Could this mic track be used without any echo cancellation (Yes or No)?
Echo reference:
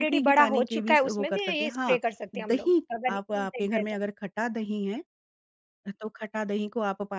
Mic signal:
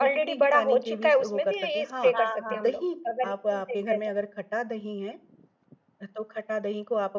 No